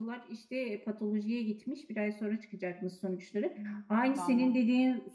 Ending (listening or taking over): listening